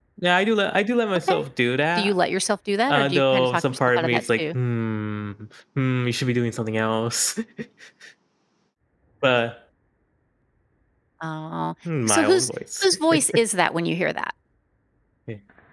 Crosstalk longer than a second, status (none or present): present